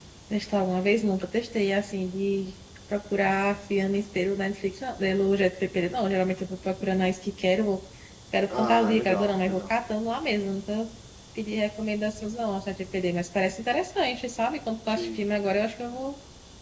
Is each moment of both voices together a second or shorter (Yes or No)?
No